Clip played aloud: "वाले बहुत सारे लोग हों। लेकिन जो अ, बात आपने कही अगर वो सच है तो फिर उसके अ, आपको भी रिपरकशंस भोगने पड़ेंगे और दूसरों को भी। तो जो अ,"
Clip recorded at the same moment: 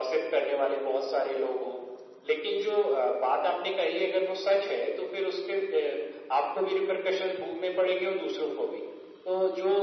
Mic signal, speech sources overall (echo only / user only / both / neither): echo only